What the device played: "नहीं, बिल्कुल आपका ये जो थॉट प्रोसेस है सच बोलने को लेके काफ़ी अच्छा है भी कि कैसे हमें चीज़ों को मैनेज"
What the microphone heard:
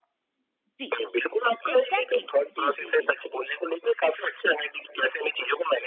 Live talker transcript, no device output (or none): जी एग्जैक्टली exactly. जी जी जी